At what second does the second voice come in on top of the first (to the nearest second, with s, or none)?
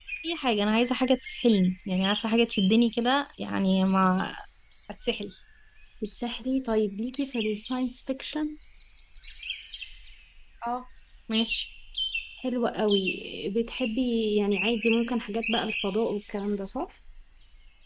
none